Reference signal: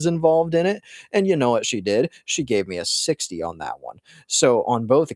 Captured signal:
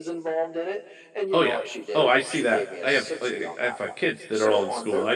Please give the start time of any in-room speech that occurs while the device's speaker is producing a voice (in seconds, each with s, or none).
1.3 s